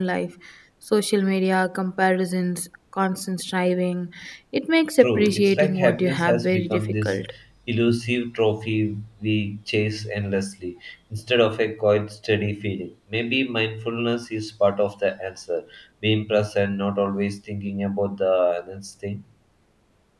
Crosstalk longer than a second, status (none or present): present